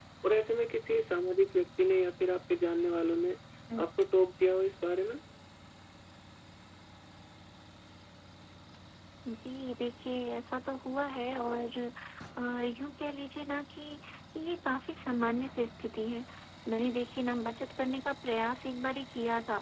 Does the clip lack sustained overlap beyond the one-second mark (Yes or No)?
Yes